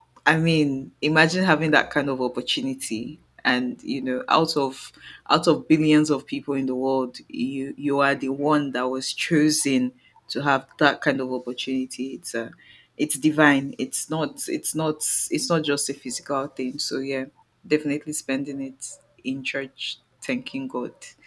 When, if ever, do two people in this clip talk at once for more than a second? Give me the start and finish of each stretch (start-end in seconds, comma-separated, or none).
none